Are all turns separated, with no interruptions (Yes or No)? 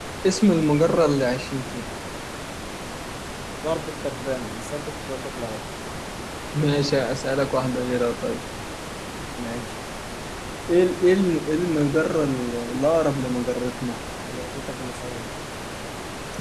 Yes